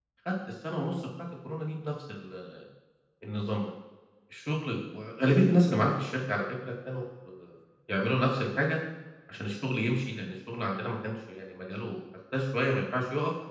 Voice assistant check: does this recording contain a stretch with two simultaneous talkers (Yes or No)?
No